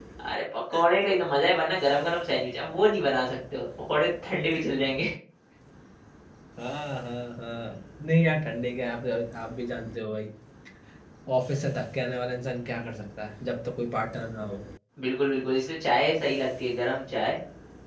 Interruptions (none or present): none